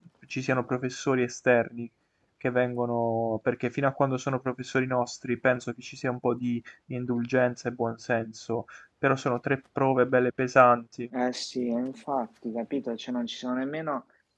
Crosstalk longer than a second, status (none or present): none